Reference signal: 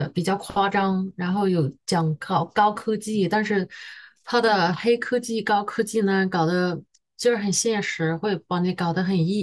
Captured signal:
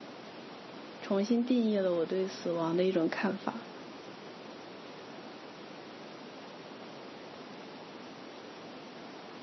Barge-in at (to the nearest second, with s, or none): 1 s